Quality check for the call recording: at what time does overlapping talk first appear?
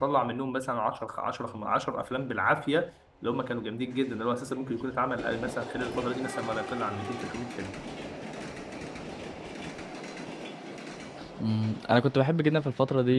none

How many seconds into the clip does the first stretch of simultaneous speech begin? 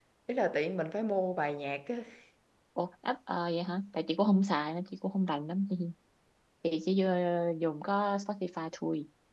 none

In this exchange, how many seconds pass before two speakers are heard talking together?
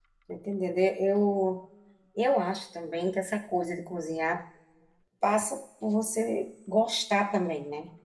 none

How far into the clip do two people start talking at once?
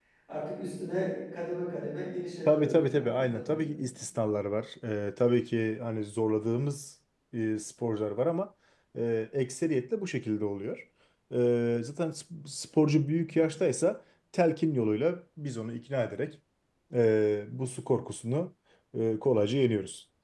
2 s

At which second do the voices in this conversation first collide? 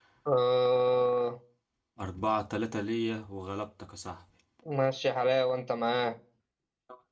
none

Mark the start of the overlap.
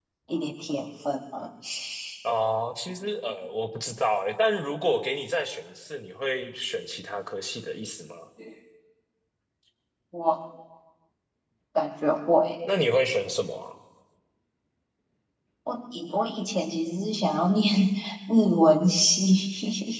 none

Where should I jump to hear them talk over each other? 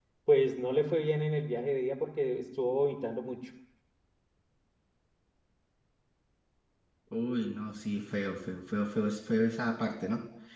none

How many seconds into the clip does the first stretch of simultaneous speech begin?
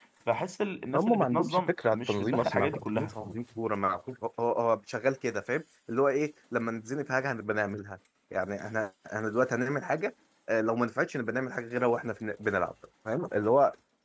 1 s

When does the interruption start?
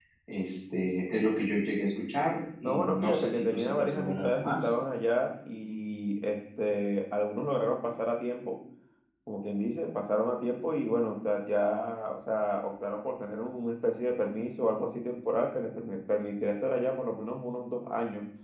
3 s

